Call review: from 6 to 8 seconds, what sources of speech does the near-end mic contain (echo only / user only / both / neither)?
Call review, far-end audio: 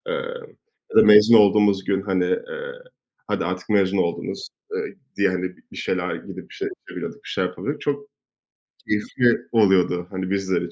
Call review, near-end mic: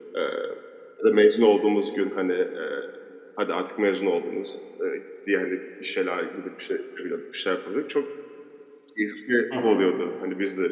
echo only